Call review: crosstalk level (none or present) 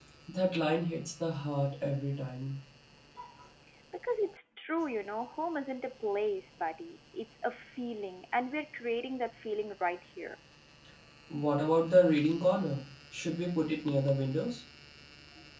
none